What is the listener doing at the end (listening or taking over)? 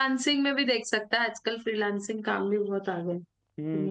taking over